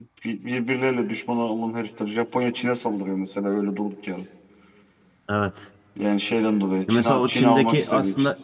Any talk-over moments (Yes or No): Yes